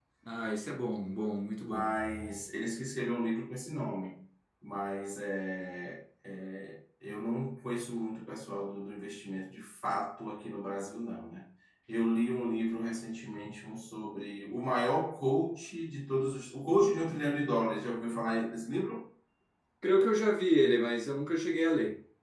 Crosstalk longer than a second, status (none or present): none